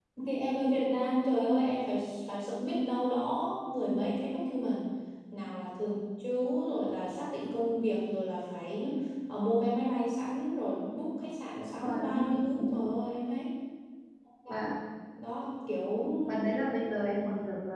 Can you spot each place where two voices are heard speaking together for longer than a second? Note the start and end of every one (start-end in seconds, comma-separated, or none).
11.6-12.9